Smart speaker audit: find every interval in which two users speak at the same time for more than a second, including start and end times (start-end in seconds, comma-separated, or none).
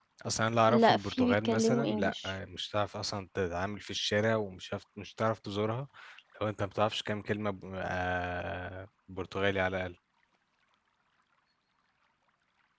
0.7-2.3